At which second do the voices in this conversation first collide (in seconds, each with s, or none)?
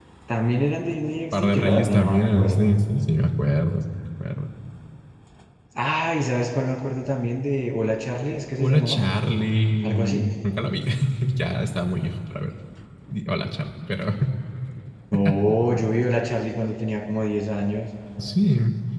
1.3 s